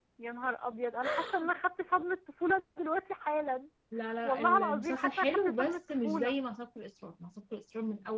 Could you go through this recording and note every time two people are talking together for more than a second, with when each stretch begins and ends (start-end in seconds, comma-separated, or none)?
4.2-6.3